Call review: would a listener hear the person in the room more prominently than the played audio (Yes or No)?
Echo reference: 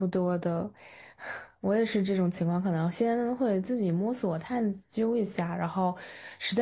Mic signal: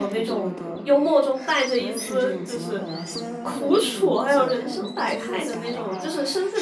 Yes